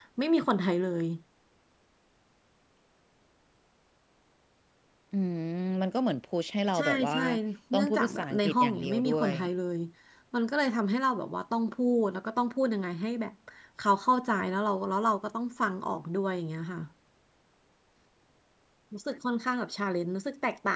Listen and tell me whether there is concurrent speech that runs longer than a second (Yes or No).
Yes